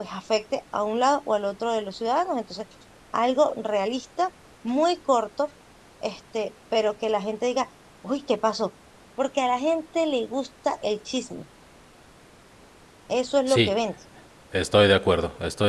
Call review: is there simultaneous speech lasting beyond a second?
No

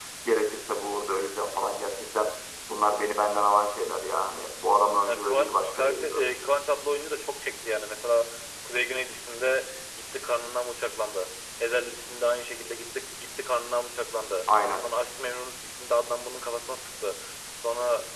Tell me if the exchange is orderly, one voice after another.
No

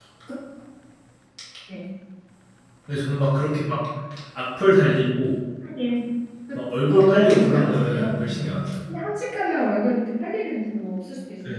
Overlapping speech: Yes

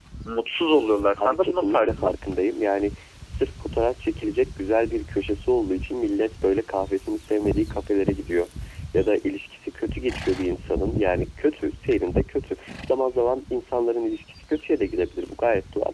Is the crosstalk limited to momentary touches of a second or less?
No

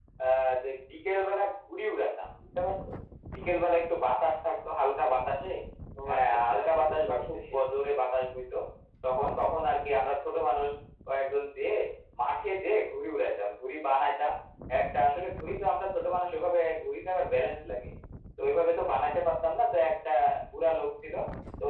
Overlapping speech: Yes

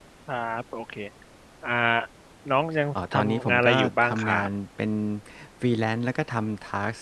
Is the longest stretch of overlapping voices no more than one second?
No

